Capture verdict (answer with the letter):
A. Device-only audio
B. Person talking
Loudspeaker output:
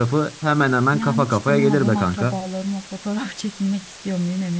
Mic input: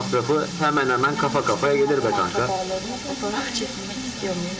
B